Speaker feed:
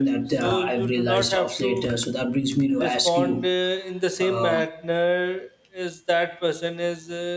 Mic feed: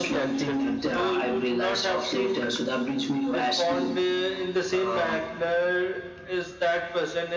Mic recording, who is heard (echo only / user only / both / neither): echo only